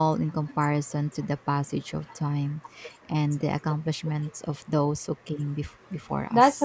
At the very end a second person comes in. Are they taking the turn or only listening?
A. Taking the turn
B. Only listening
A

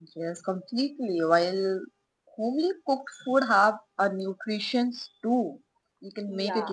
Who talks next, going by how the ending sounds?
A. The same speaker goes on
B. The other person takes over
A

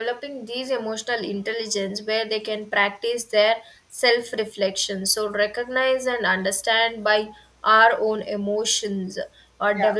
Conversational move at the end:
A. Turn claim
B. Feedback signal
B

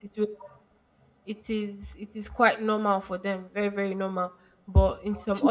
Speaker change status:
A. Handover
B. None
A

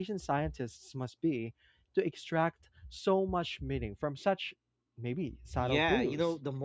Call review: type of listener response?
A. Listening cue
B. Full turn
B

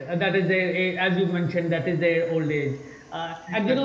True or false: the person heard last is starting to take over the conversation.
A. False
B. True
A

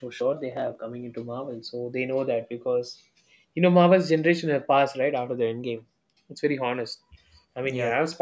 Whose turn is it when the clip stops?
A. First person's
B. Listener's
A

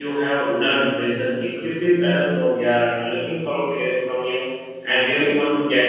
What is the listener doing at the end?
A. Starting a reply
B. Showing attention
B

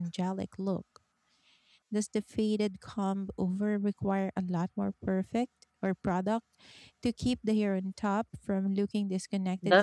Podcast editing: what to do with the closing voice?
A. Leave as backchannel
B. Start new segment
B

